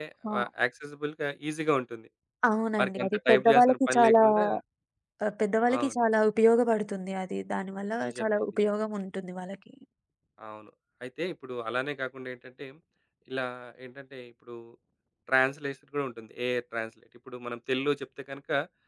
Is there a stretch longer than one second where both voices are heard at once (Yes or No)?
Yes